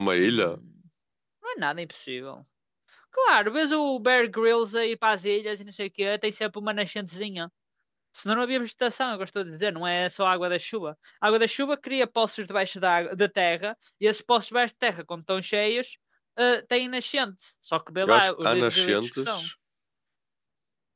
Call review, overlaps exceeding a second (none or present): present